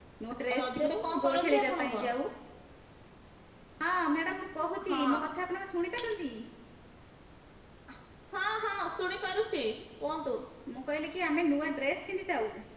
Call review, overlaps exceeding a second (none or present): present